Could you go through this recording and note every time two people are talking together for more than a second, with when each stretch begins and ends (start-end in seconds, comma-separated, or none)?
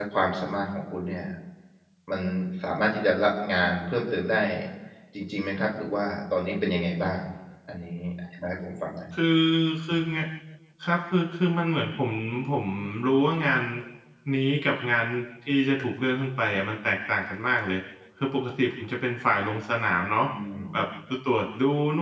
none